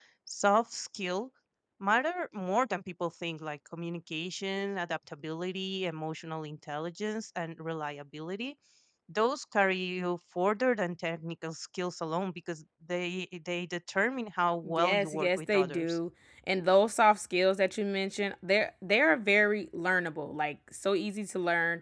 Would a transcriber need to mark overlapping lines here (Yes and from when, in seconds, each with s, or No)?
Yes, from 14.6 s